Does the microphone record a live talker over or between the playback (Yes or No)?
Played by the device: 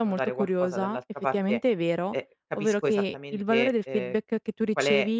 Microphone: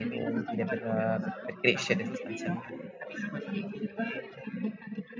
Yes